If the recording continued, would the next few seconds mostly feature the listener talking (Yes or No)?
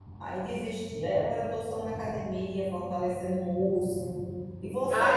Yes